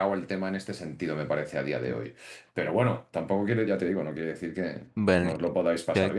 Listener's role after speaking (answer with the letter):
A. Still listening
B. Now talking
B